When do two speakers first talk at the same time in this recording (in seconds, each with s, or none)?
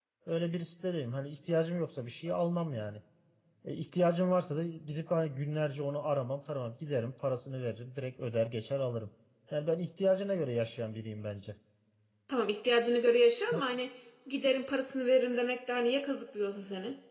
none